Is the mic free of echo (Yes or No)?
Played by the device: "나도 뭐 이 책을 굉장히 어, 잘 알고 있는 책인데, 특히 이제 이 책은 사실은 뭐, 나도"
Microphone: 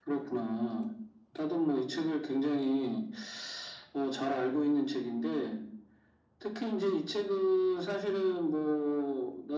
No